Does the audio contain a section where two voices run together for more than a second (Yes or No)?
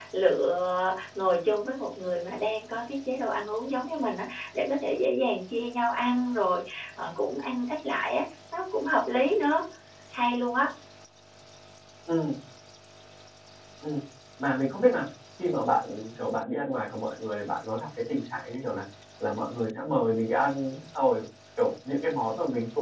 No